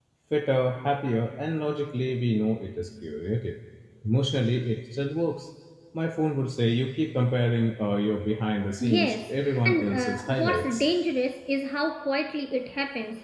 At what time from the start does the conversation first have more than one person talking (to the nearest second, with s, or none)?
9 s